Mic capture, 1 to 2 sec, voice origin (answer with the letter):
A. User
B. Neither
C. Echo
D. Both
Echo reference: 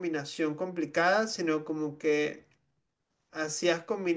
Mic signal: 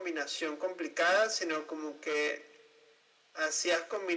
C